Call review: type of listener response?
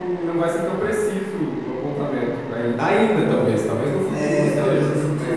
taking over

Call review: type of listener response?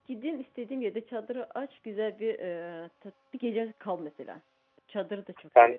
taking over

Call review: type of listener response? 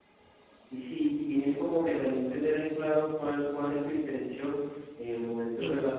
listening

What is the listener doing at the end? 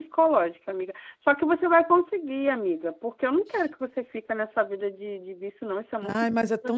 taking over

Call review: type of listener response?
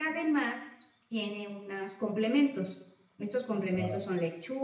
listening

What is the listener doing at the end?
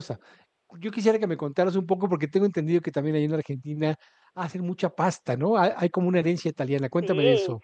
taking over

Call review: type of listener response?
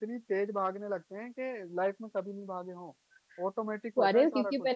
taking over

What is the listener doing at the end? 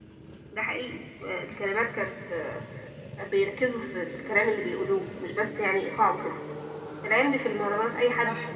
listening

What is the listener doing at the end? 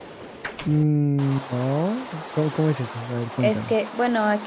taking over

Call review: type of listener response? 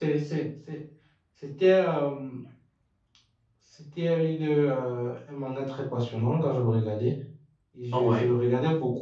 listening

